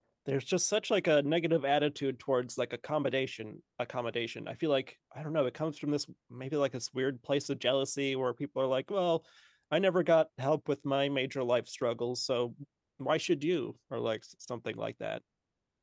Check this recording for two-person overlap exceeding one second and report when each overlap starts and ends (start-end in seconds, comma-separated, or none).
none